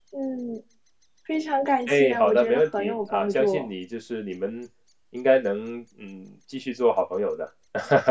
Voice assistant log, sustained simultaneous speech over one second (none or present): present